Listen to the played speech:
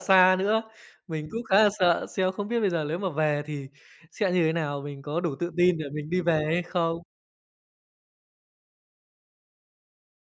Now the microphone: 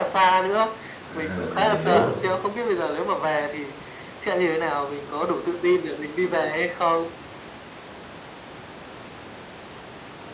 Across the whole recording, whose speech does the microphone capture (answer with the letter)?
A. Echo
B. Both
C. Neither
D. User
B